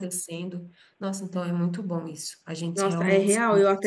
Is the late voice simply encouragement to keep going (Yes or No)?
No